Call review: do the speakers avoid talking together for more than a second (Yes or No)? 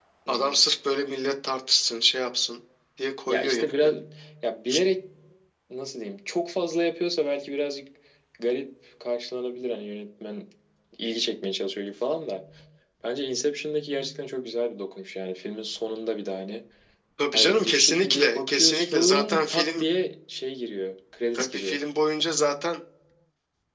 No